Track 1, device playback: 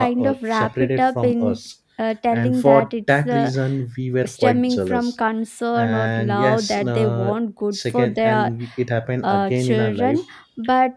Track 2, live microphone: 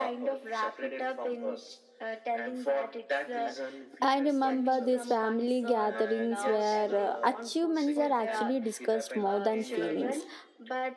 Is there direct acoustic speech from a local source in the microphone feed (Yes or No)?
Yes